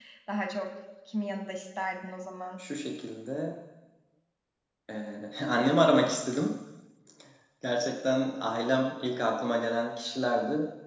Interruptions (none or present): none